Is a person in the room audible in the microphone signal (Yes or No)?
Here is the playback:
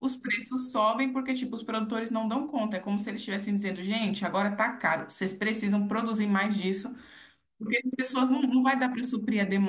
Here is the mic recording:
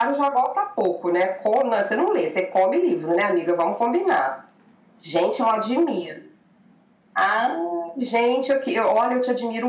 Yes